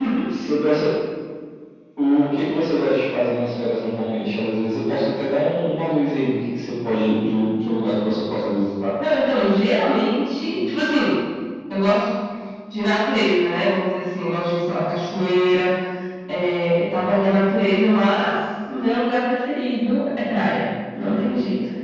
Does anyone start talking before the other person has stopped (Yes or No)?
No